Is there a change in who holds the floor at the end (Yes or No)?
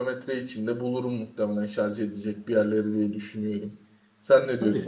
Yes